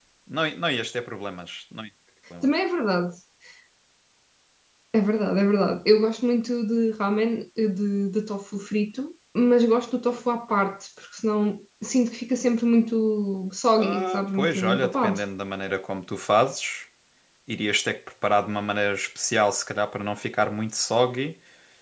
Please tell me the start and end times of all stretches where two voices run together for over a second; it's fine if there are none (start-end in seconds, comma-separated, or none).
13.8-15.2